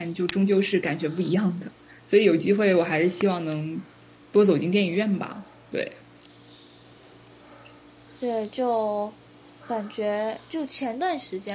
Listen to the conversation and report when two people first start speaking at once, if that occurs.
none

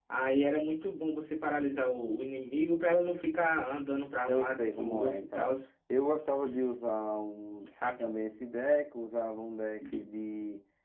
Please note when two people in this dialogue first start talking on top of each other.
4.3 s

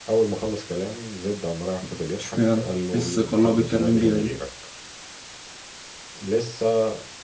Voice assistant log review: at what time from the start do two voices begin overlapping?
2.2 s

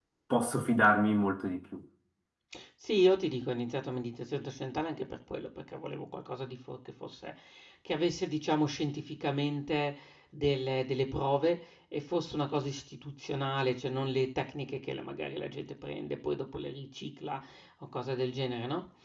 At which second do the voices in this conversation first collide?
none

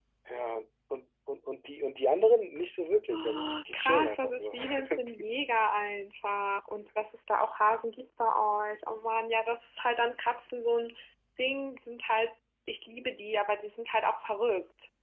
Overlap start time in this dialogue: 3.1 s

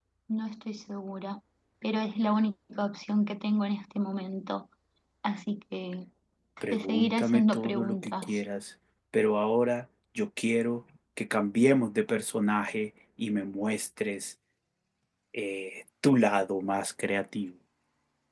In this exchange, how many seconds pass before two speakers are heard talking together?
6.7 s

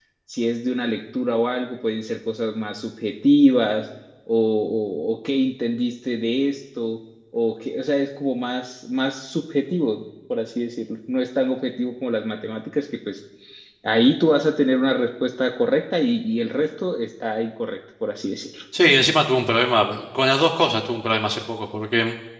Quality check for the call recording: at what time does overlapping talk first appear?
none

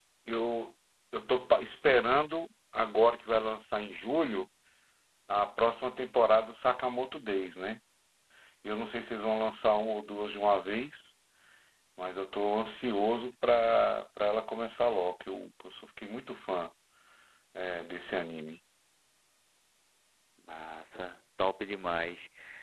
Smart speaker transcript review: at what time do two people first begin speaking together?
none

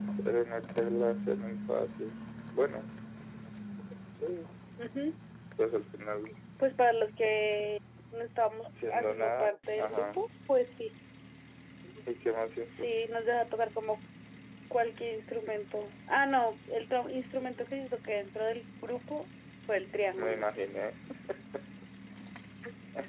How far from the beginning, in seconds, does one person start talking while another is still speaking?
8.6 s

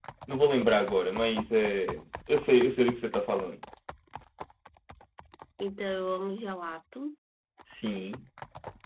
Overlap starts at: none

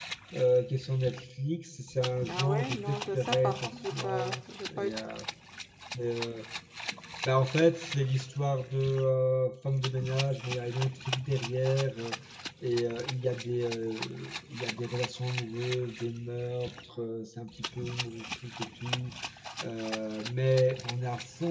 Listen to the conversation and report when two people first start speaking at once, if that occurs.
2.3 s

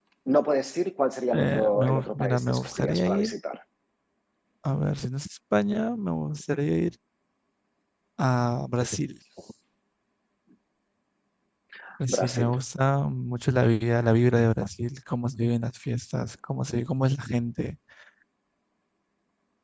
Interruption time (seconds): 1.3 s

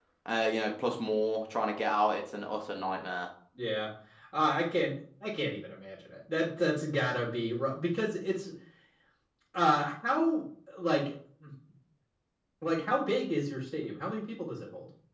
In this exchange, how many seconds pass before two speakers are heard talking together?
none

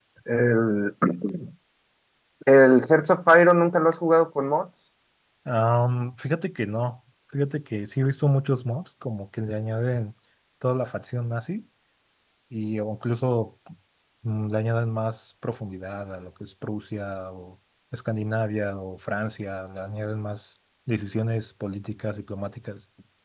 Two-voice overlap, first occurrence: none

